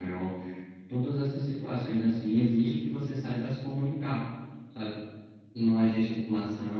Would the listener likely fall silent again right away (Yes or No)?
Yes